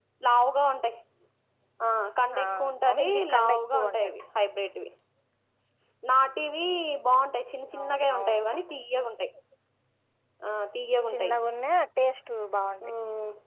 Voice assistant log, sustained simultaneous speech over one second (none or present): present